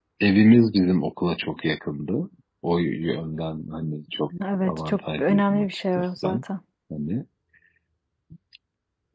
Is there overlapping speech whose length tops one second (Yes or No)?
Yes